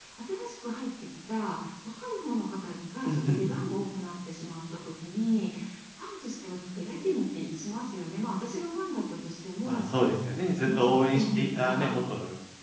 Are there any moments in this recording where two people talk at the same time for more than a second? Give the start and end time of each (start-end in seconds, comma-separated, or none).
10.4-11.9